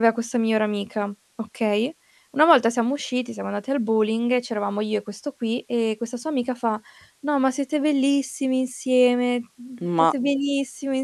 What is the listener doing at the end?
listening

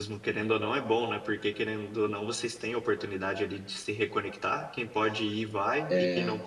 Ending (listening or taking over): listening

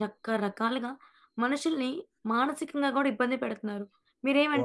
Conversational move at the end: listening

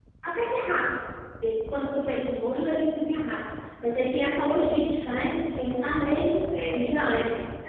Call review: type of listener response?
taking over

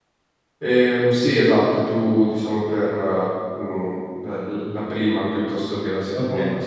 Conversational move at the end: taking over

